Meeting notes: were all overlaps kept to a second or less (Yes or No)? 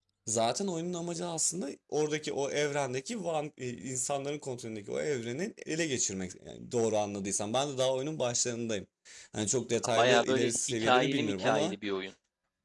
No